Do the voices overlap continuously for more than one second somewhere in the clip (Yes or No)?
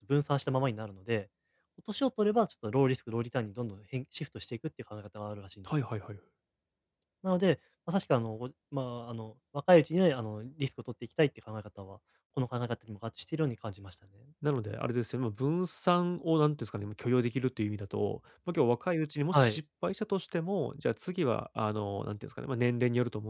No